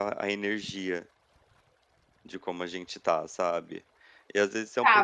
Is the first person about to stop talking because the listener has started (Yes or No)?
Yes